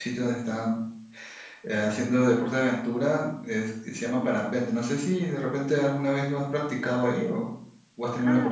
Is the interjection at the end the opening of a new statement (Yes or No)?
Yes